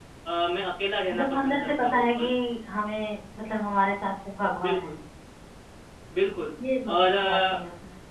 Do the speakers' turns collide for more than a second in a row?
Yes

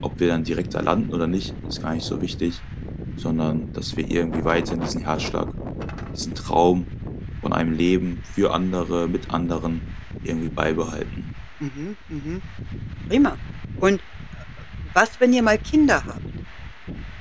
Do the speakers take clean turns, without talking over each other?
Yes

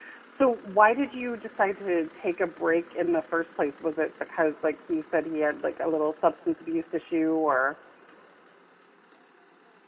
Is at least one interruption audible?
No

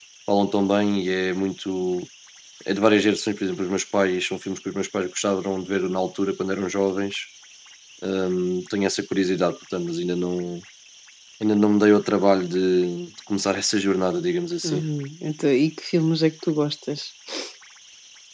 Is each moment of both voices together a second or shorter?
Yes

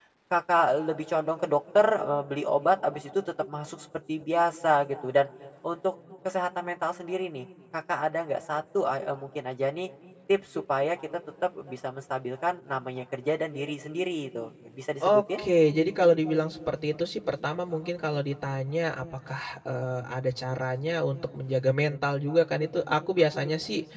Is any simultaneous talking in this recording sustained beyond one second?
No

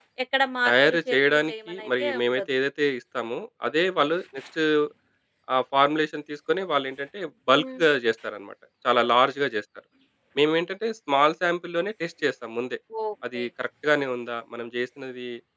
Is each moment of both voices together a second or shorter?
No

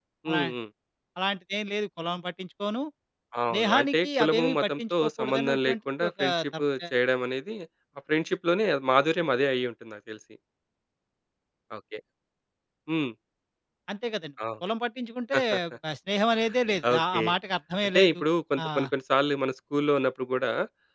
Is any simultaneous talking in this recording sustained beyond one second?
Yes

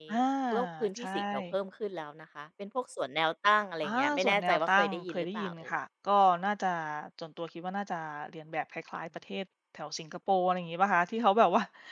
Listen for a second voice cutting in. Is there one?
Yes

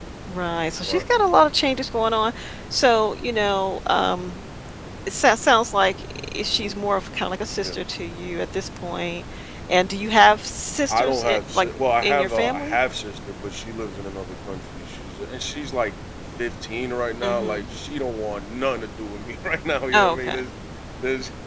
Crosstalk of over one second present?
Yes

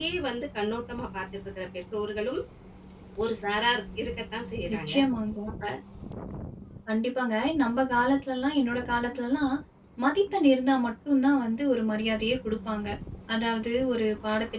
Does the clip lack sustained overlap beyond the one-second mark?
Yes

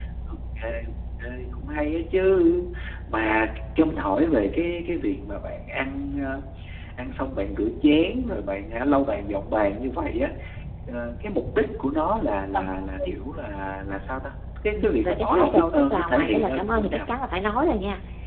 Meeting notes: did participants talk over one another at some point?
Yes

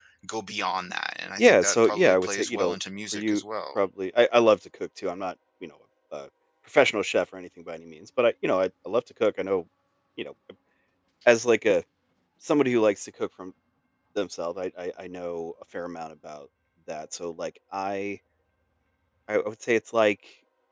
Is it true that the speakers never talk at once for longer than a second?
No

